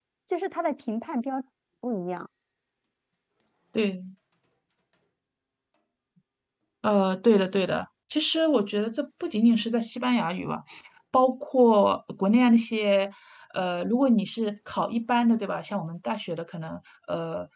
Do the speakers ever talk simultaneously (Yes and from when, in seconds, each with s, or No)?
No